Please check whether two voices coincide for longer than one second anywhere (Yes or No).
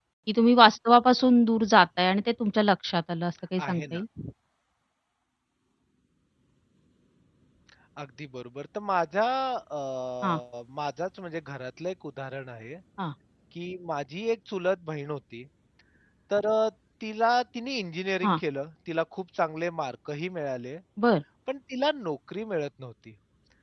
No